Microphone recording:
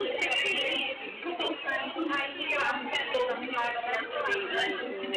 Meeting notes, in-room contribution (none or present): present